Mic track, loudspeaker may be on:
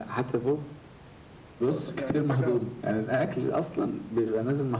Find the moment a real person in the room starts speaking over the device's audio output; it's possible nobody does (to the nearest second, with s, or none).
2 s